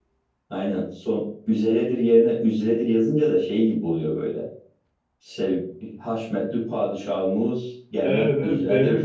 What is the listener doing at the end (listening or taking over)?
taking over